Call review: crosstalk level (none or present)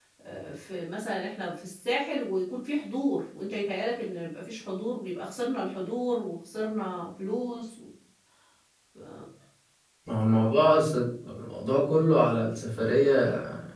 none